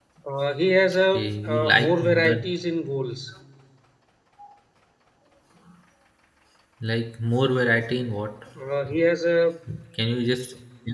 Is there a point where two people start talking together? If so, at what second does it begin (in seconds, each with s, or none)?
1.1 s